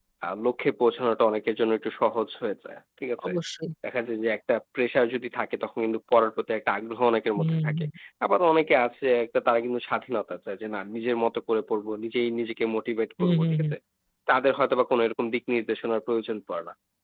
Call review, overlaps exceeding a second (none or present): none